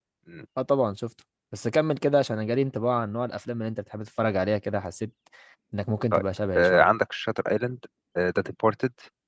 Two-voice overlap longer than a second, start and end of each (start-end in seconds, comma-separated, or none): none